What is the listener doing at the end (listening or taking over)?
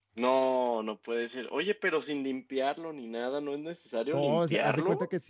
taking over